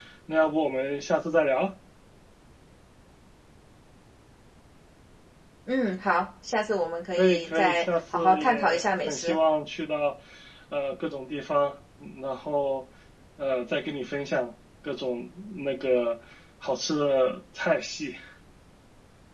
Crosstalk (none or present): present